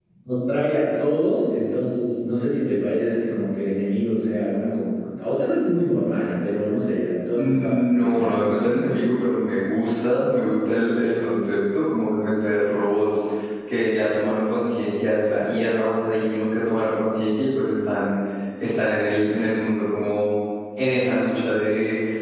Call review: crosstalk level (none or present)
present